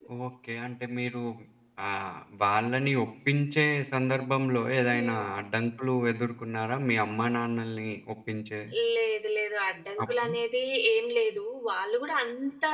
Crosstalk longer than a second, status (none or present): none